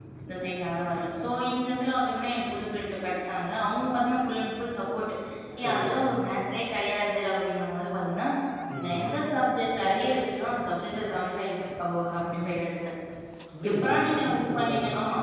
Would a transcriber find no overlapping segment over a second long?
No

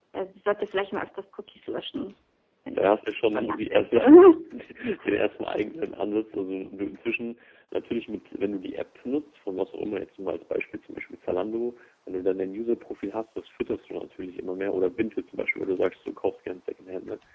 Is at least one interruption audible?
Yes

